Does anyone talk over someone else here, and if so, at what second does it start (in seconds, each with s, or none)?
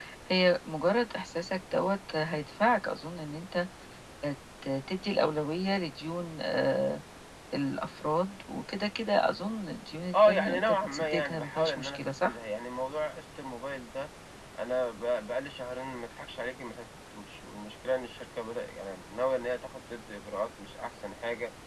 10.1 s